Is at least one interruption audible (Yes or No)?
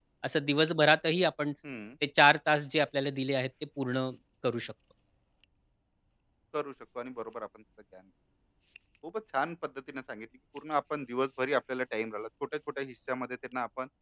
No